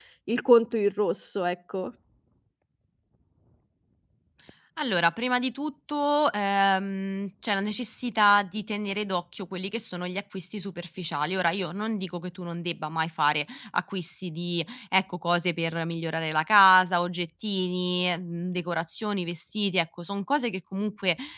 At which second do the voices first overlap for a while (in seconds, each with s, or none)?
none